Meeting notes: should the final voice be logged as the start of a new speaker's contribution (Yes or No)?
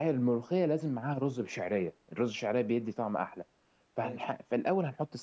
No